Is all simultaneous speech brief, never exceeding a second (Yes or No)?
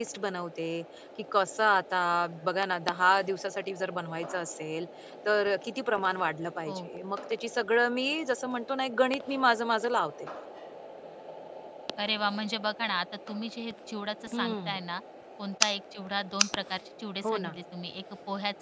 Yes